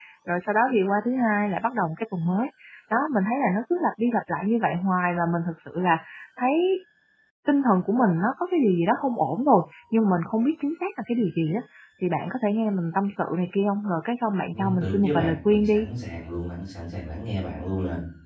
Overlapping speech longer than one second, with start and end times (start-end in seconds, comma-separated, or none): 14.5-15.9